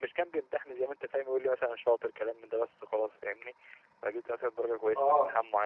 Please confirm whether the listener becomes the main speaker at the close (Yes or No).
Yes